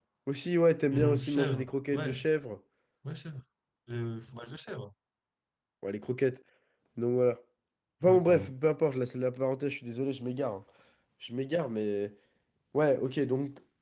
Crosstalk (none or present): present